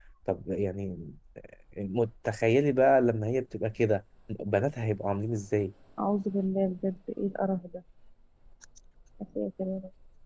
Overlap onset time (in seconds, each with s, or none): none